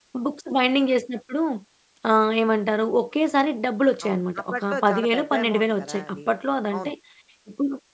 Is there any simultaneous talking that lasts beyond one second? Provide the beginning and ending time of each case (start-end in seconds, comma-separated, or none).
4.1-6.2